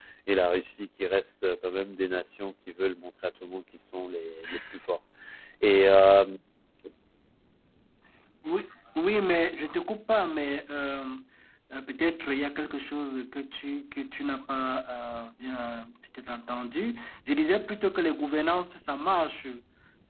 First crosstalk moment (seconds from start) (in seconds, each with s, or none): none